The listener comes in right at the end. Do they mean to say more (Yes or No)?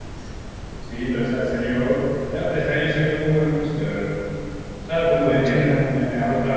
No